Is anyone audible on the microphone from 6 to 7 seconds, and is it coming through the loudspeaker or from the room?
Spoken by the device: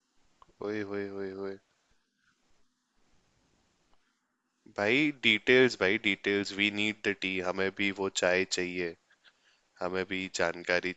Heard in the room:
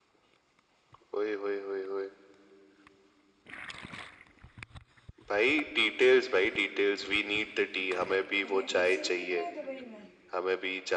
echo only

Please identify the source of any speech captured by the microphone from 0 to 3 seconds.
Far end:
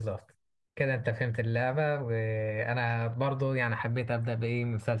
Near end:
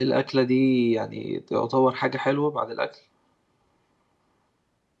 user only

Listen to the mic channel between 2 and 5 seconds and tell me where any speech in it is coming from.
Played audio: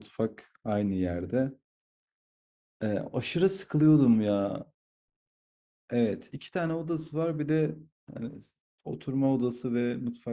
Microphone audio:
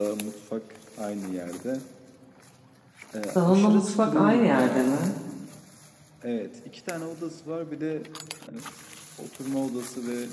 both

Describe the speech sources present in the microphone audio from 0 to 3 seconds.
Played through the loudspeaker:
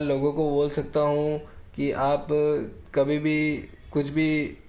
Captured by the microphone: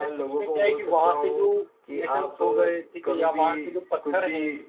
both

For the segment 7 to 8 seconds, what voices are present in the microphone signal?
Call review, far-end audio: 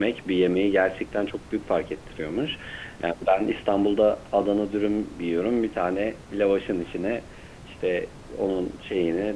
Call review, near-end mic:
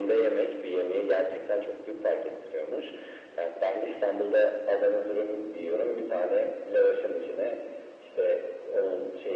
echo only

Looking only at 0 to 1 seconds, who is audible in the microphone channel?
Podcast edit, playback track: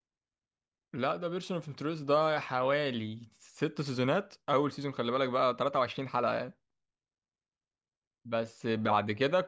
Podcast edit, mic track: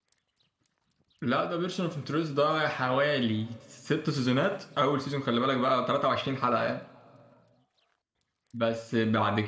neither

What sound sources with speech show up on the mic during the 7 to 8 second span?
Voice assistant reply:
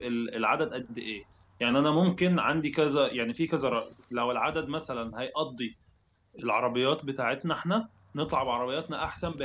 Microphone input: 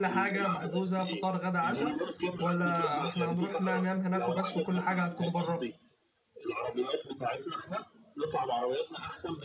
echo only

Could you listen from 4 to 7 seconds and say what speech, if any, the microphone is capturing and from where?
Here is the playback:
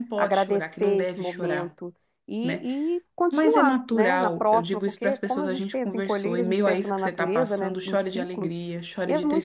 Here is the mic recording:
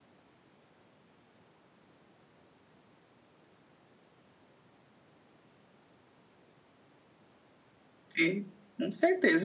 neither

